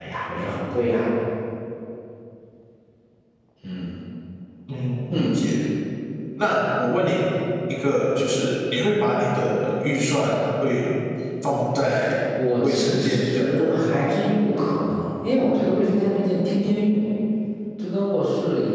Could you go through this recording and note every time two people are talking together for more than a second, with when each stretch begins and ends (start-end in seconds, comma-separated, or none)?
12.6-13.9